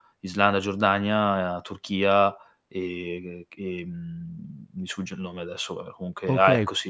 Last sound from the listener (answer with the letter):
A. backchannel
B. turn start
B